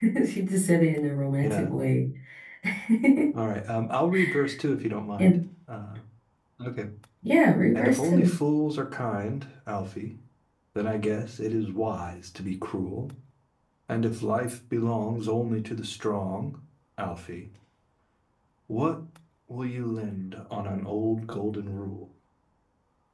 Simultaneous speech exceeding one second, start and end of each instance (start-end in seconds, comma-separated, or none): none